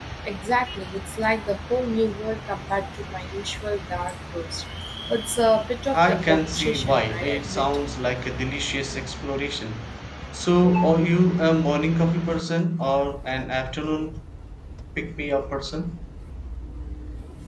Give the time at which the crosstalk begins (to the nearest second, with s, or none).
6 s